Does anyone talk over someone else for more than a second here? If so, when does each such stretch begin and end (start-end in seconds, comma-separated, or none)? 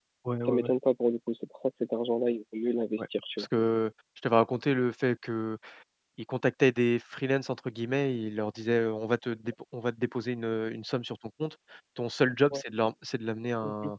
none